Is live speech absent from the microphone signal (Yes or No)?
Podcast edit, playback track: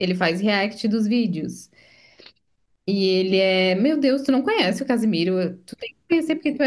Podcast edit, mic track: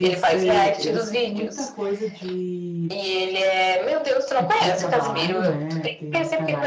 No